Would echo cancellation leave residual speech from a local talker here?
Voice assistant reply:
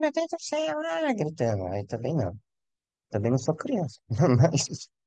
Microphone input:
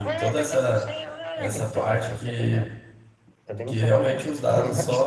Yes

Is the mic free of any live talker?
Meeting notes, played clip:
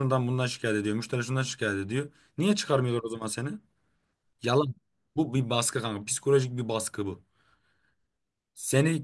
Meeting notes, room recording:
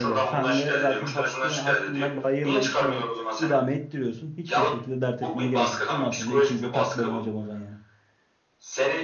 No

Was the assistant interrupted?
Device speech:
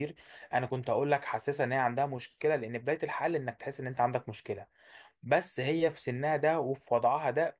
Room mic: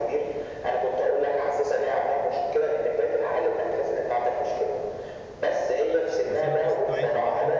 Yes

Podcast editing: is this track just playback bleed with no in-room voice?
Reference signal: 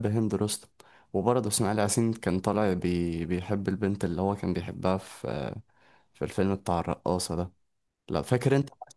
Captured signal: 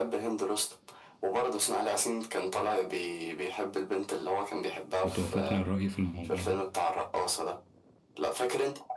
No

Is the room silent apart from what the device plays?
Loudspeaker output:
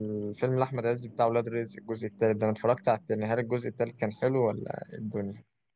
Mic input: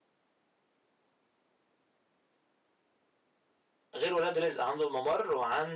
No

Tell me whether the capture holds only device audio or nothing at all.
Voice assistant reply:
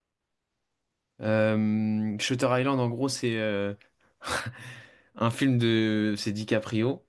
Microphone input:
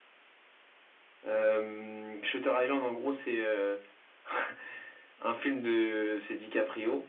Yes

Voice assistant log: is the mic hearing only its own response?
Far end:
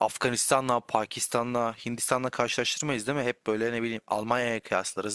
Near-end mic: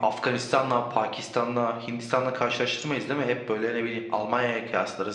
Yes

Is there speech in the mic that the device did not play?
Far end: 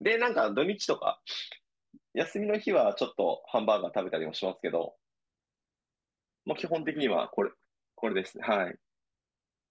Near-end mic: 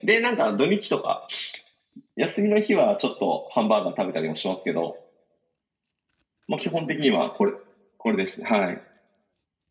No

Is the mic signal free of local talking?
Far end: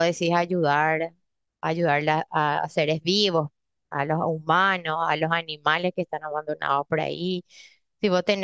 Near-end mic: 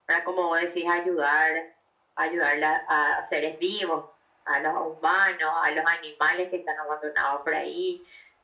Yes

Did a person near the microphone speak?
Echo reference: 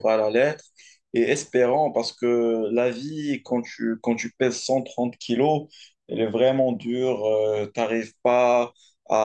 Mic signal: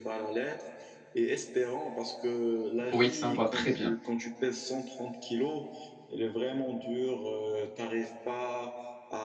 Yes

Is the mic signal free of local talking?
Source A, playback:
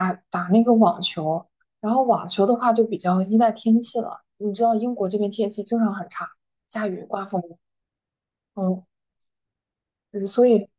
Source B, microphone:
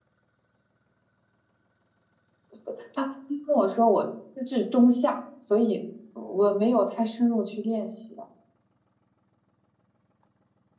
No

